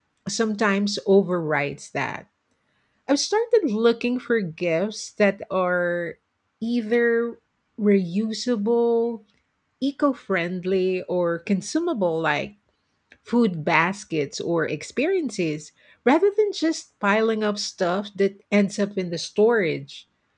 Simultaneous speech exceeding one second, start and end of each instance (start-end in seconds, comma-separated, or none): none